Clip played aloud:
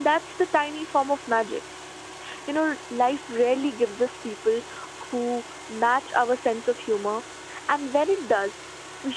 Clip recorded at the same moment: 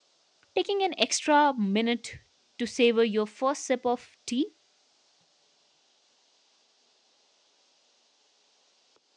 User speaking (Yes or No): Yes